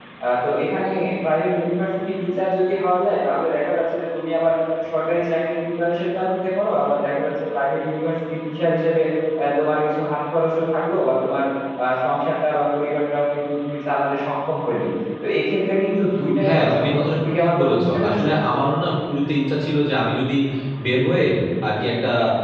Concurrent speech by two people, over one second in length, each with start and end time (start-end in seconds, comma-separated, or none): 16.4-18.3